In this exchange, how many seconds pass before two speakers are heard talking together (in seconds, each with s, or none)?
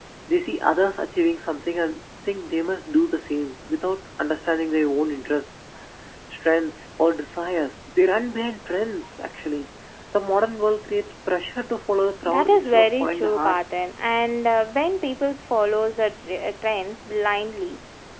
12.3 s